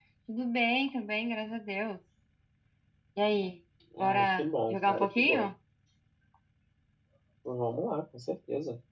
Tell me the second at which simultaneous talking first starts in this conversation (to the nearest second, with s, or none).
4 s